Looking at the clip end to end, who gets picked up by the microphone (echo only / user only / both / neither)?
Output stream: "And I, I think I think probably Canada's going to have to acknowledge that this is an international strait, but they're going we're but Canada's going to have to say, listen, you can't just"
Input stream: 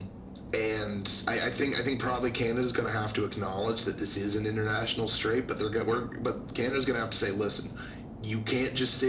echo only